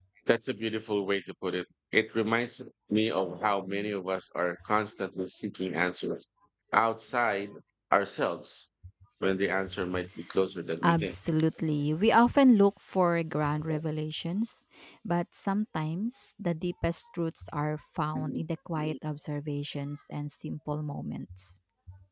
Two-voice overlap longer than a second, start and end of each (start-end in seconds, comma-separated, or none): none